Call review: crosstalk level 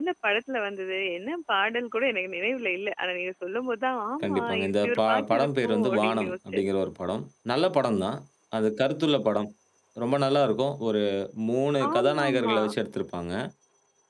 present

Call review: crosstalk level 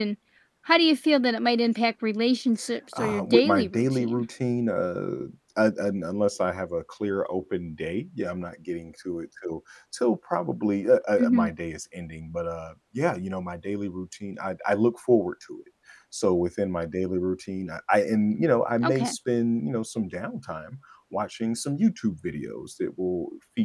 present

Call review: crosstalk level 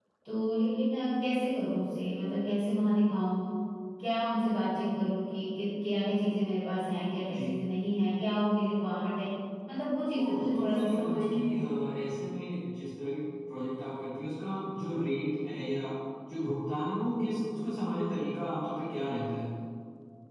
present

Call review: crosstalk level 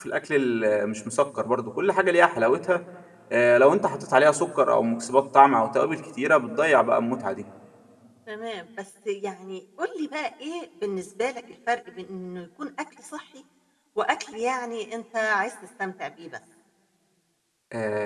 none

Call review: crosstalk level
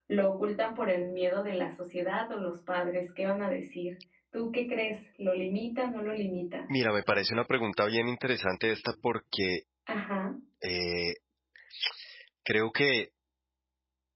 none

